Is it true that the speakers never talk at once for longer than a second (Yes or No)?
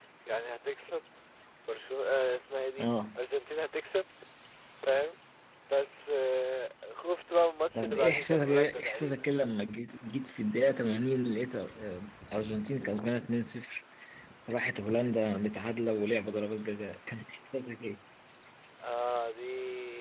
No